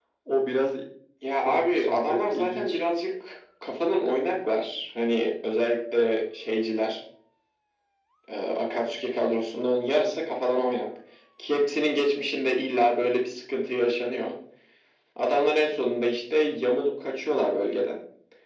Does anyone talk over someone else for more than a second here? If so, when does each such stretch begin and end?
1.4-2.8

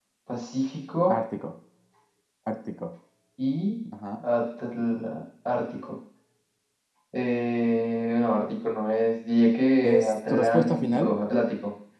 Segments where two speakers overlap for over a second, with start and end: 9.8-11.1

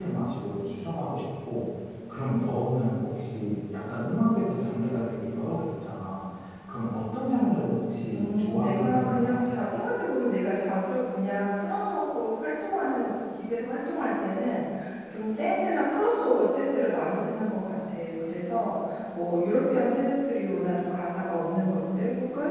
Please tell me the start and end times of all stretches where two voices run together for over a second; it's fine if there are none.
8.1-9.4

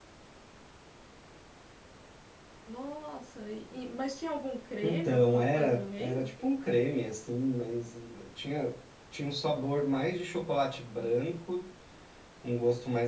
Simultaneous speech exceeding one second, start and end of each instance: 4.8-6.3

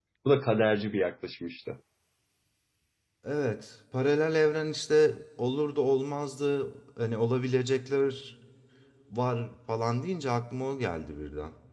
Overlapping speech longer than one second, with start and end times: none

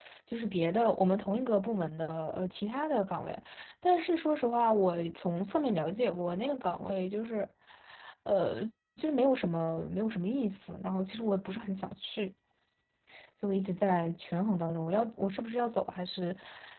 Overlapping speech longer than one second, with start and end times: none

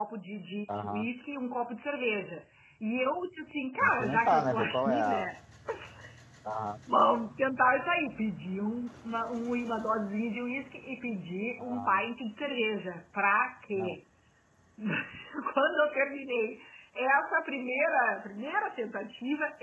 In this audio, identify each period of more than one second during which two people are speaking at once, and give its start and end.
3.8-5.3

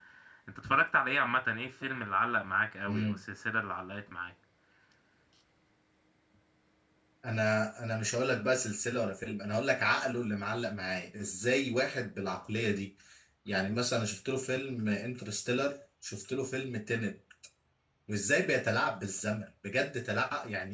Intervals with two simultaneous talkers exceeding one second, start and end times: none

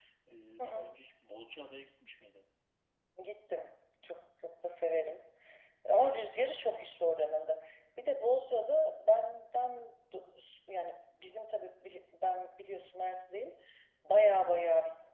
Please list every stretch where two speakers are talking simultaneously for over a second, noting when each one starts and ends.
5.9-7.1

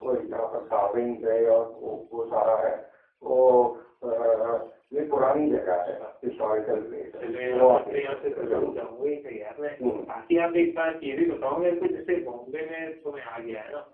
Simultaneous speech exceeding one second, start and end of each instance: 7.2-8.7

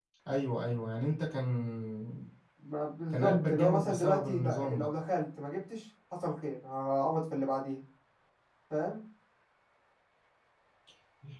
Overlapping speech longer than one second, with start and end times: 3.1-4.9

